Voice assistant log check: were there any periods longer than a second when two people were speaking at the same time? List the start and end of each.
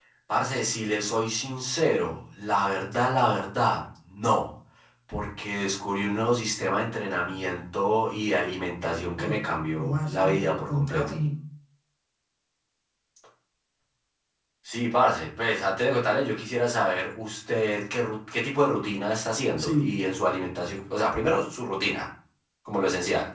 9.8-11.1

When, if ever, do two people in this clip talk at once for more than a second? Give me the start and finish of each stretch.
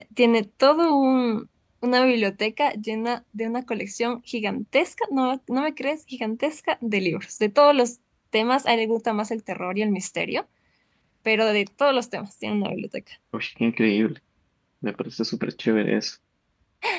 none

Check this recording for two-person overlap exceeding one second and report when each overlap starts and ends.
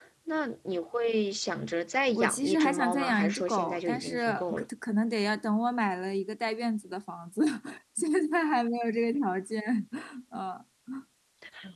2.2-4.6

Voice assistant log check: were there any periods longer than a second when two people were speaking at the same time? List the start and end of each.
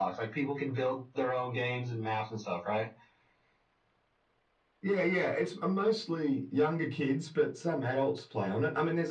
none

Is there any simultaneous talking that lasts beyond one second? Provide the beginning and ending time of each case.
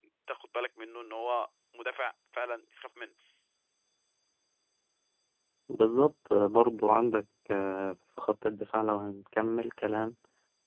none

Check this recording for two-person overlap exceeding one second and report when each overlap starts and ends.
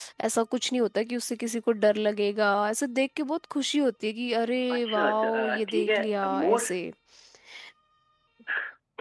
4.7-6.7

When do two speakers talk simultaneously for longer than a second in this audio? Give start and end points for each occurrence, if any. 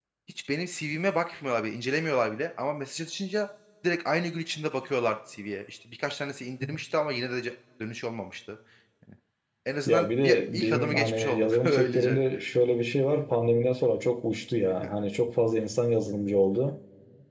9.9-12.2

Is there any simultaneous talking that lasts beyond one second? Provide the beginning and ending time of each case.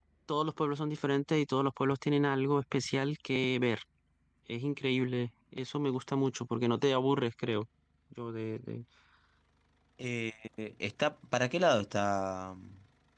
none

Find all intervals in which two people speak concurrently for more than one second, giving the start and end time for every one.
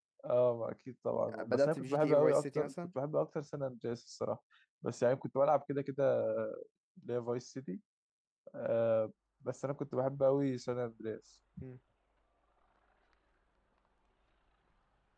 1.4-2.7

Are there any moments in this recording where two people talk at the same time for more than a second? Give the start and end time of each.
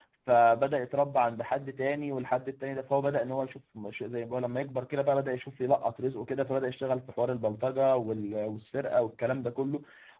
none

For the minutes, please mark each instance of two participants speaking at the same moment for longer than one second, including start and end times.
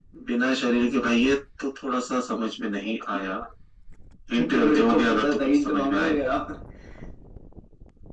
4.6-6.1

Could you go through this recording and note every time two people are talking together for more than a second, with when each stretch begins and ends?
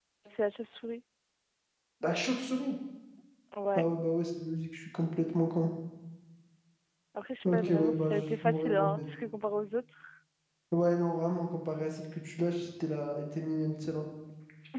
7.5-9.0

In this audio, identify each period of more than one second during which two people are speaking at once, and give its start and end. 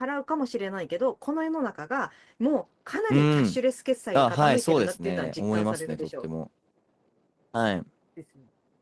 4.2-6.2

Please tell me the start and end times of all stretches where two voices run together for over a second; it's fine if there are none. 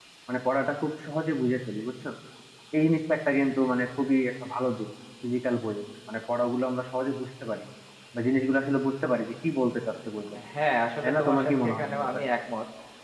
11.0-12.2

